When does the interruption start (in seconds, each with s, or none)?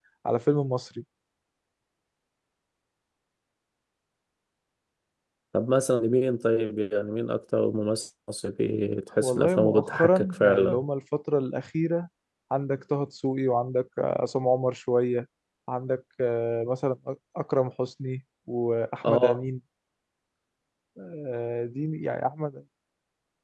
9.2 s